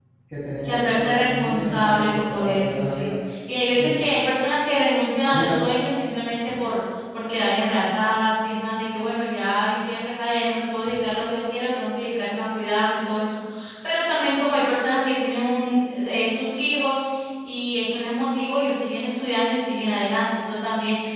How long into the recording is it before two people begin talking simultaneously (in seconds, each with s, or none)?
0.6 s